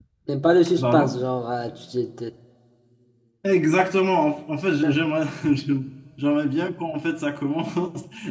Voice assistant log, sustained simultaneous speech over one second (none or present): none